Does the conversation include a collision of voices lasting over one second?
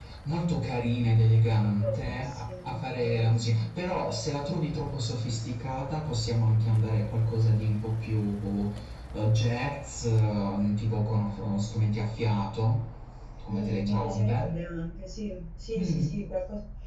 Yes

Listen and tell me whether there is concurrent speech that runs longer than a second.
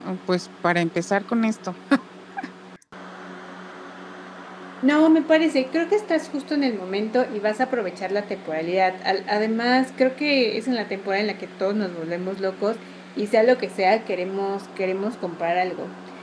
No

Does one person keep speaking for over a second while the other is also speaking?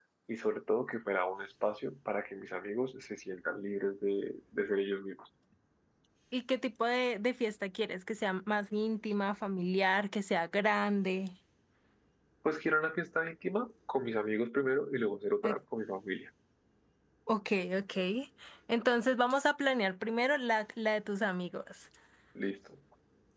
No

